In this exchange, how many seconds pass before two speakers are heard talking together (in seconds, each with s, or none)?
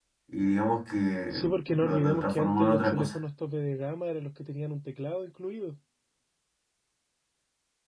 1.3 s